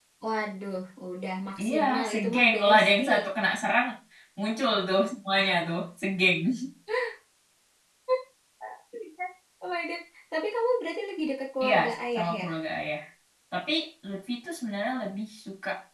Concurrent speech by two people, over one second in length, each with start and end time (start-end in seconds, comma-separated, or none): 1.6-3.0